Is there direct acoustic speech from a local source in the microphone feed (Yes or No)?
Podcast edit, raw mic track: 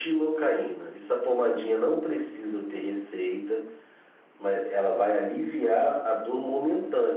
No